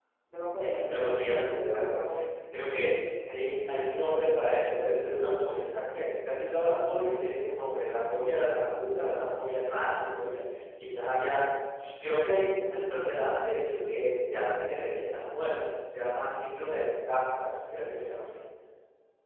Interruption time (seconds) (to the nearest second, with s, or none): 1 s